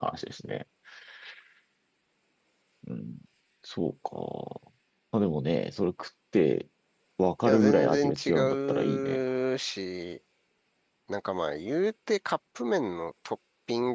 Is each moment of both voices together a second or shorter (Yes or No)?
No